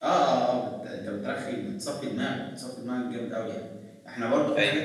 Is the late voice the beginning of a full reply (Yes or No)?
No